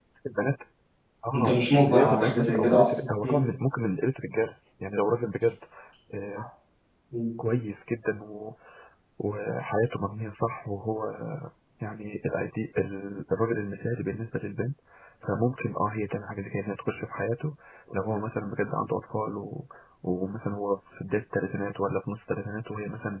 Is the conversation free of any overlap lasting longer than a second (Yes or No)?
No